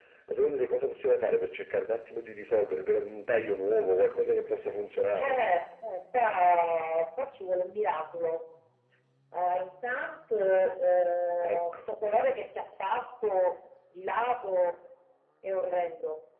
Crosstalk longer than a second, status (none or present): none